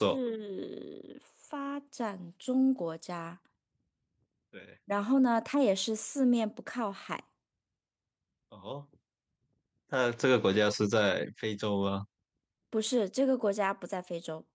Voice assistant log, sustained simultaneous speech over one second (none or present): none